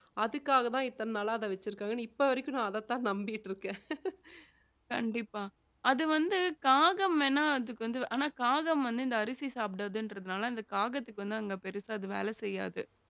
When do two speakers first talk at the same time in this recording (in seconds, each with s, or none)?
none